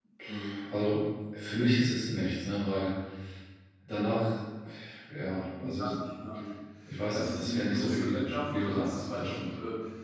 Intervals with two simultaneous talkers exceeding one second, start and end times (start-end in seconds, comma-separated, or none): 7.1-9.5